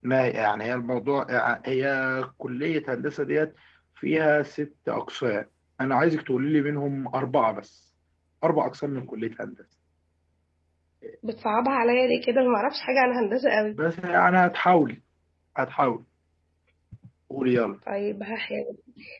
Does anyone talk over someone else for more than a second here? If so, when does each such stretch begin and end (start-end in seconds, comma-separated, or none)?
none